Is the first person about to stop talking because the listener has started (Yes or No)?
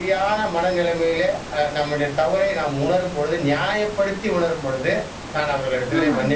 No